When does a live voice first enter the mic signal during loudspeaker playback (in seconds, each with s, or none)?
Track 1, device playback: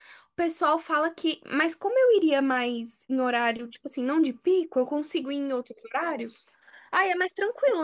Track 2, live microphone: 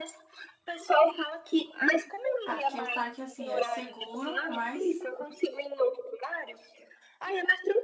2.4 s